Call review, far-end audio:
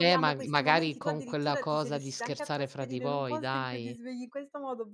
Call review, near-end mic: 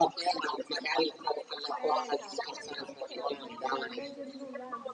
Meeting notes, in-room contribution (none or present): present